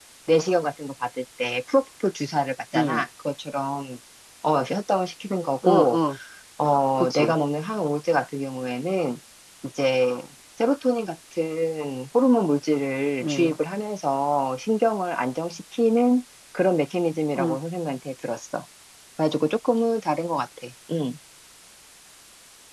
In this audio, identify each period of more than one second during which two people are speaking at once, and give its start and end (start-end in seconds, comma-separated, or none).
none